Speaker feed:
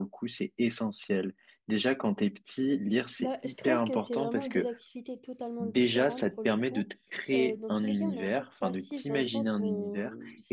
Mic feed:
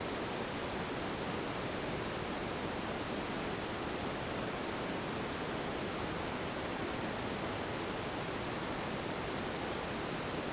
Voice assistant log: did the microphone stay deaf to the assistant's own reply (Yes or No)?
Yes